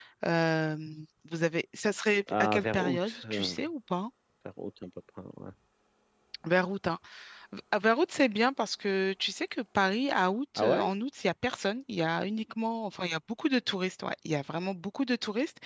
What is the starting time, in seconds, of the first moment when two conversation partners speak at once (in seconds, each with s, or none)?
2.3 s